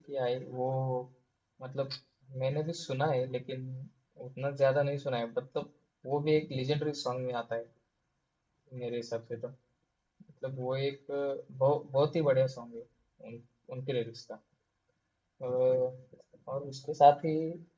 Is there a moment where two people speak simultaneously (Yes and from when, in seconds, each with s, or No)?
No